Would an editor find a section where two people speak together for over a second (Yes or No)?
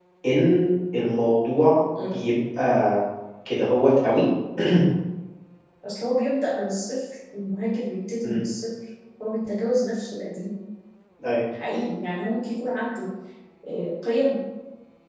No